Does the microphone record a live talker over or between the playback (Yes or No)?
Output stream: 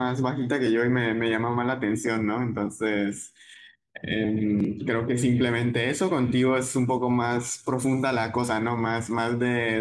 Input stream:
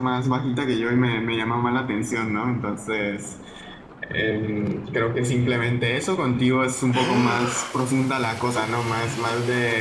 No